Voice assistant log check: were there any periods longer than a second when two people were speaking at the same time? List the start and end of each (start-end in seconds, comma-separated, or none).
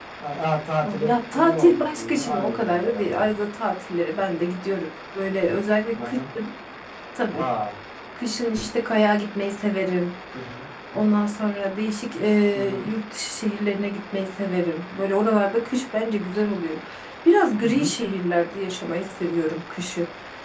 0.8-3.3